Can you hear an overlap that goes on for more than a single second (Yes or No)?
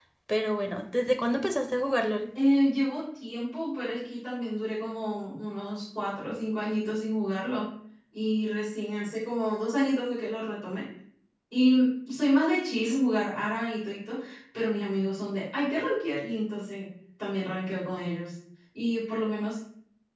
No